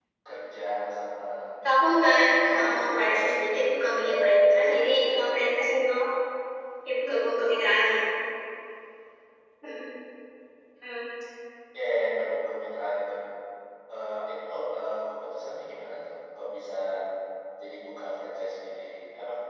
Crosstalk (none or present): present